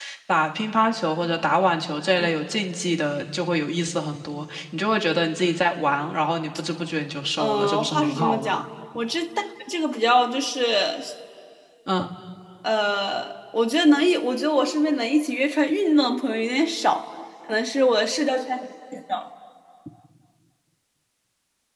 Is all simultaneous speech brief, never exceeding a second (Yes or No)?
No